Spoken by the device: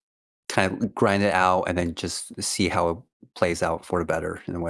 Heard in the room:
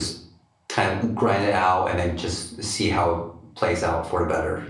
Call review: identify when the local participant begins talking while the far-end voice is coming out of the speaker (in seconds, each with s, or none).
none